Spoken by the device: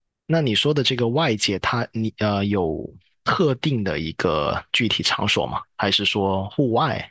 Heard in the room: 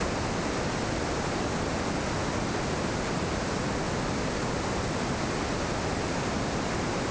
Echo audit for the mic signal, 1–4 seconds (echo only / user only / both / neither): neither